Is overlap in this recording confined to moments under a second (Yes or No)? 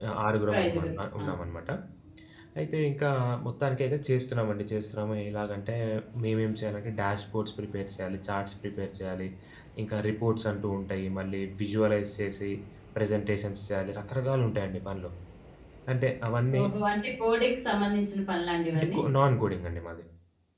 Yes